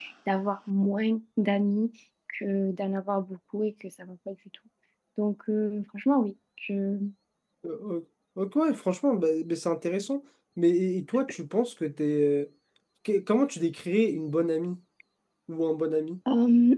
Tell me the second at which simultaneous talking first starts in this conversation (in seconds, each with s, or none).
none